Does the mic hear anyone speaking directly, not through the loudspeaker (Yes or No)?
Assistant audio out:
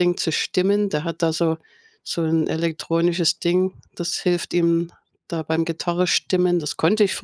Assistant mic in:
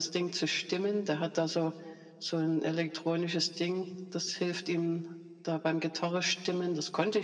No